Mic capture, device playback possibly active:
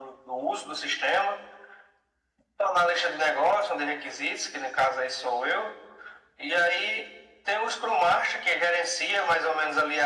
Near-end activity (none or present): none